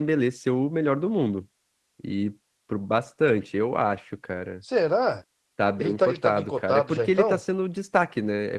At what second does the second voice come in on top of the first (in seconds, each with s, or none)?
5.8 s